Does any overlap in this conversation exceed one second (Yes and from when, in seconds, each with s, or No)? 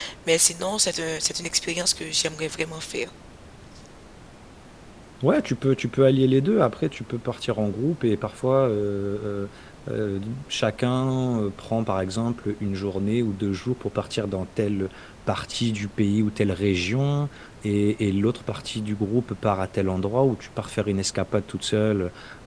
No